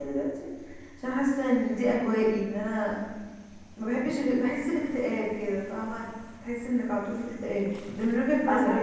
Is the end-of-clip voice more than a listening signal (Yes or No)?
Yes